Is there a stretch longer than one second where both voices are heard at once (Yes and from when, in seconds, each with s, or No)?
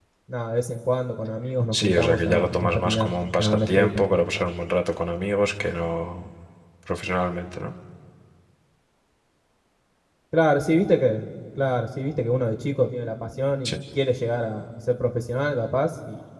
Yes, from 1.7 s